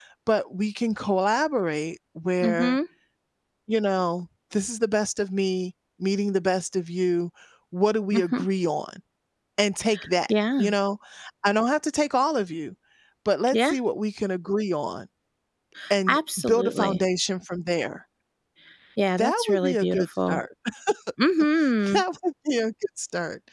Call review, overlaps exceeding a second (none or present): present